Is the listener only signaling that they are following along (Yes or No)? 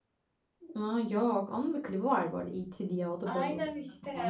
No